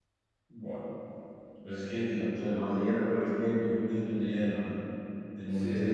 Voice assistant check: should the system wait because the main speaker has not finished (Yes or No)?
Yes